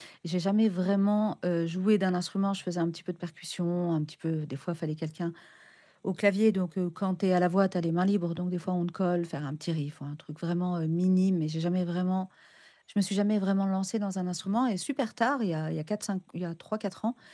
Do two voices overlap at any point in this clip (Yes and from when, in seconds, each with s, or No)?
No